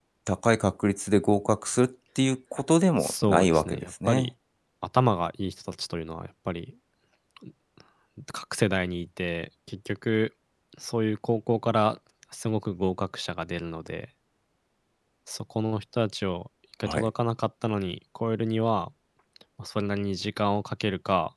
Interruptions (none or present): present